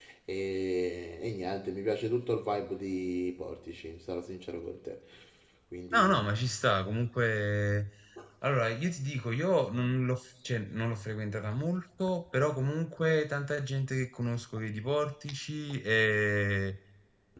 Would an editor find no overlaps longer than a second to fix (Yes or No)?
Yes